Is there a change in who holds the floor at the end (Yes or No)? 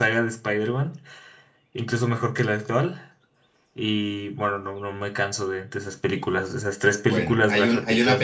Yes